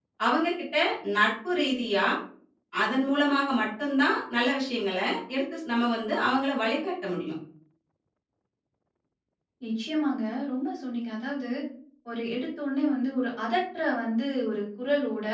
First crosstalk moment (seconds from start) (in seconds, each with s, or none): none